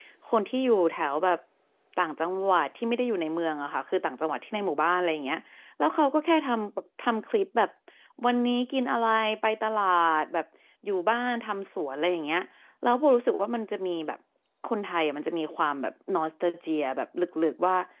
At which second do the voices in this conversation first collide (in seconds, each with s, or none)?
none